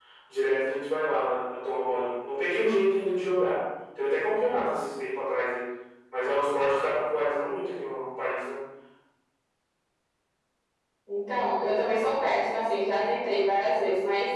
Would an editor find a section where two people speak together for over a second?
No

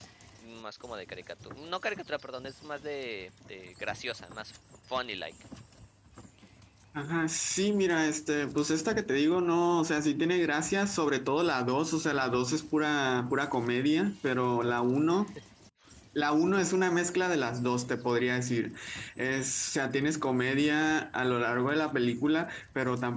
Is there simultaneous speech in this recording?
No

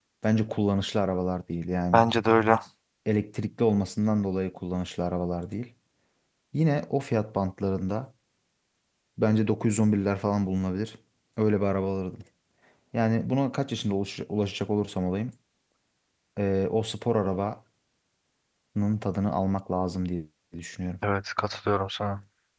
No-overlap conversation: Yes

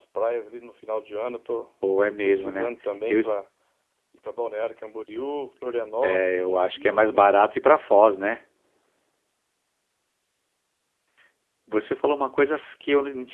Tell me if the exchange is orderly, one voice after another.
No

